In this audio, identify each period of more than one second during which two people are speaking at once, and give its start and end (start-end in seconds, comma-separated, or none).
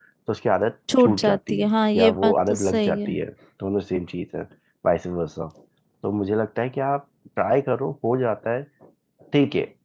1.0-3.2